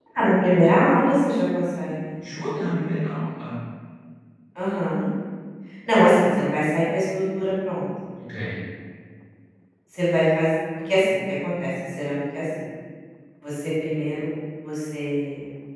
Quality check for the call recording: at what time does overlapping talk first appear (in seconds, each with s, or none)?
none